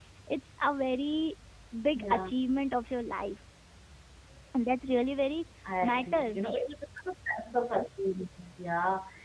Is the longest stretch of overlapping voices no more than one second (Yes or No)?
Yes